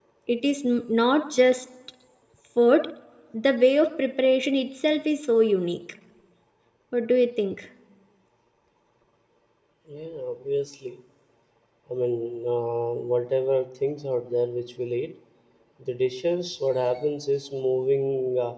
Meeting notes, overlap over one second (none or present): none